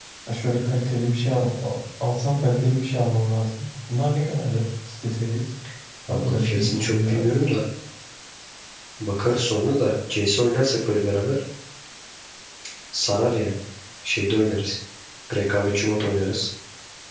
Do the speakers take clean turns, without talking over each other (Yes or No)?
No